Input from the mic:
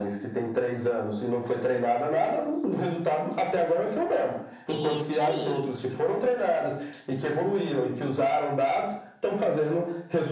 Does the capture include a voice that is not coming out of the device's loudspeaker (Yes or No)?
Yes